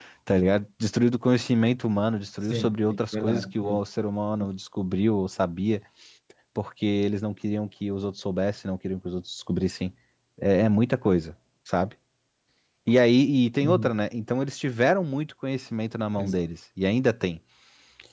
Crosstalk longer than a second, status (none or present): present